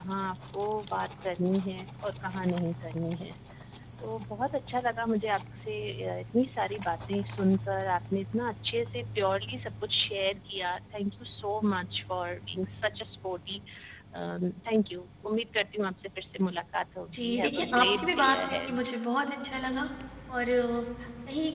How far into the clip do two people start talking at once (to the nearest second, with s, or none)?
17 s